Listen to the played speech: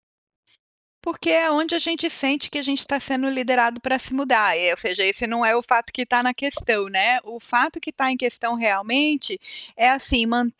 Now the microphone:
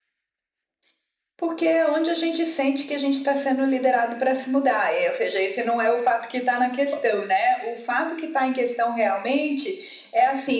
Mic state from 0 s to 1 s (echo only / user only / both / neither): neither